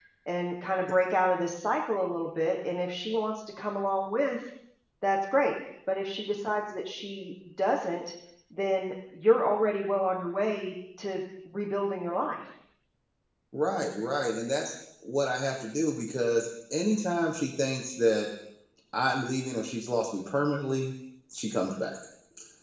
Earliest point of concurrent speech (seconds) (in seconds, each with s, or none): none